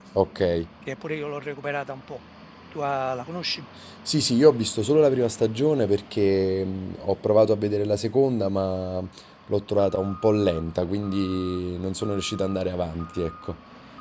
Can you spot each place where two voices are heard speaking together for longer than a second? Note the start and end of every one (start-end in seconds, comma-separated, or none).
none